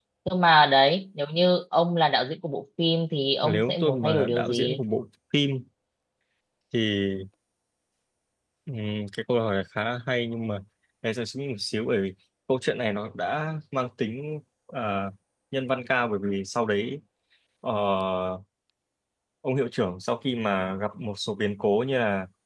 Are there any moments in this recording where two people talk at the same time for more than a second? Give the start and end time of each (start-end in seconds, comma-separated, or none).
3.4-4.8